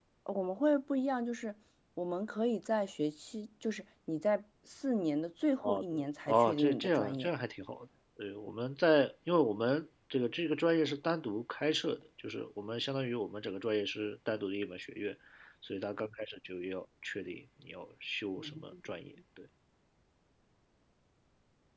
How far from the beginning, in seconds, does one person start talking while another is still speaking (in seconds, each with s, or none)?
5.6 s